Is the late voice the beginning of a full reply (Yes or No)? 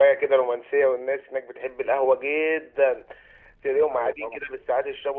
No